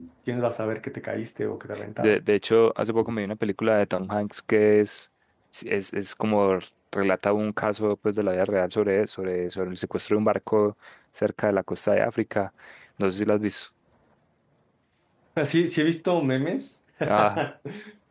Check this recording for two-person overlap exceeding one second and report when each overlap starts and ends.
none

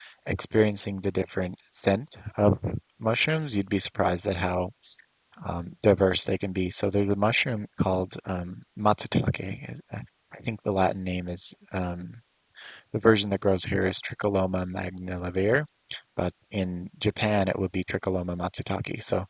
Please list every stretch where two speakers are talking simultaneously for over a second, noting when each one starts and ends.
none

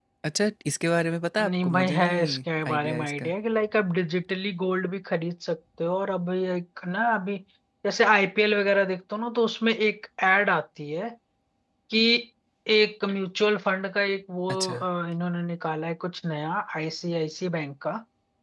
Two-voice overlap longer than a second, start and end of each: 1.4-3.3

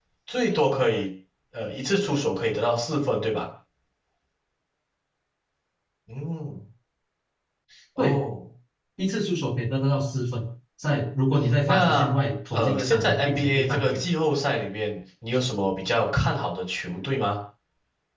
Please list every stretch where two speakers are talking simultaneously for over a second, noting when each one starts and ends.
12.5-14.0

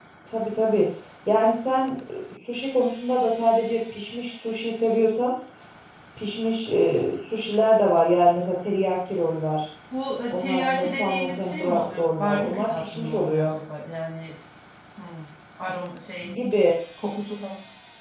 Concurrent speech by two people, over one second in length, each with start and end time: 10.3-13.6

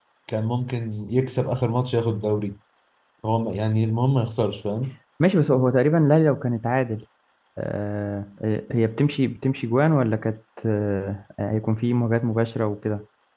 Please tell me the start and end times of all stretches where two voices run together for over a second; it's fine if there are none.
none

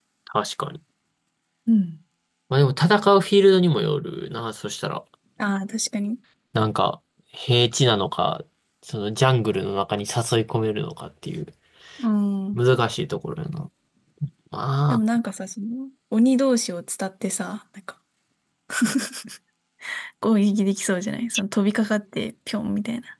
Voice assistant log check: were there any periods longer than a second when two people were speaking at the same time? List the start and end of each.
none

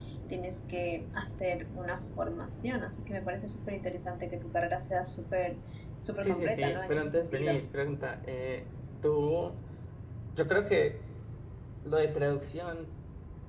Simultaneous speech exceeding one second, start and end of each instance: 6.2-7.6

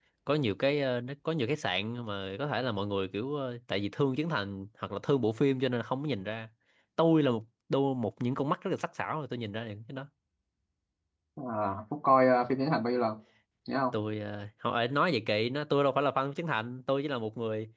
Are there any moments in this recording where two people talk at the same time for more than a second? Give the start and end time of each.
none

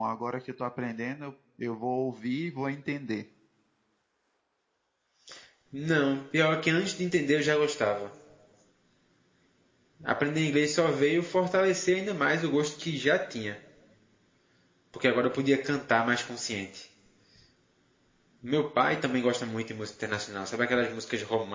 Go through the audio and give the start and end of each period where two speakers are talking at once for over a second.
none

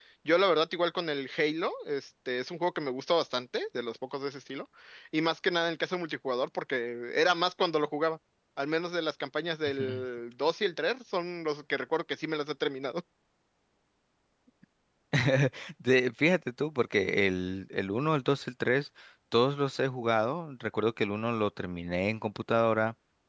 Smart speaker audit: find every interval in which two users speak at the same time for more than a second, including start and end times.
none

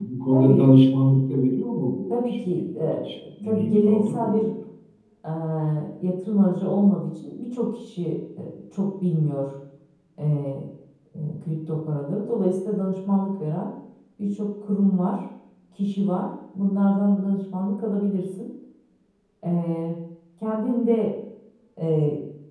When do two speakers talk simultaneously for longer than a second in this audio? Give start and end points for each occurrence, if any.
2.1-4.5

